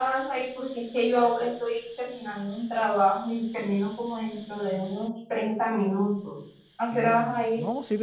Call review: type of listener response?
taking over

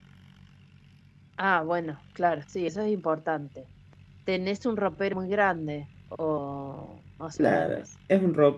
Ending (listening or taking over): taking over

